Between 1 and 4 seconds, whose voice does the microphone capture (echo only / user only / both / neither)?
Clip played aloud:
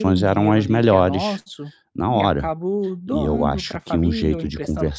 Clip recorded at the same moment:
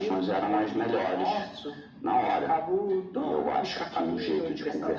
echo only